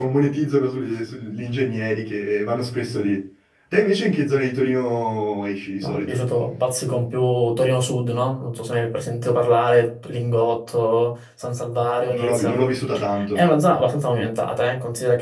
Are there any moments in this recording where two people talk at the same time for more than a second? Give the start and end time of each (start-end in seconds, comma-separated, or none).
none